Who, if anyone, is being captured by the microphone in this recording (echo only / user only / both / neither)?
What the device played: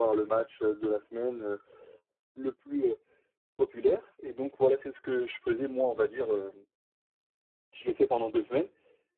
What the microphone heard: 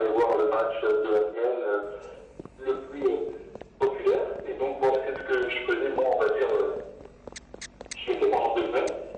echo only